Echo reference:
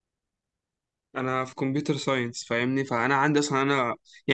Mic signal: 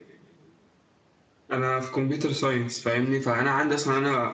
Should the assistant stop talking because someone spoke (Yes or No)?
No